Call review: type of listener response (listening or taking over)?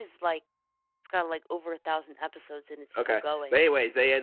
taking over